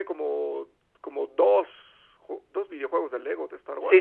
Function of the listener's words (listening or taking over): taking over